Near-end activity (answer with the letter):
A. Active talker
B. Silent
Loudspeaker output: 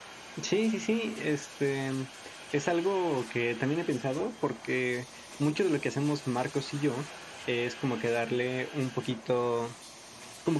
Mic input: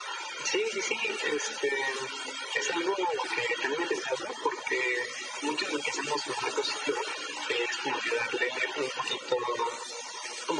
B